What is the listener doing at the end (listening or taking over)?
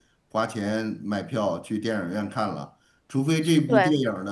listening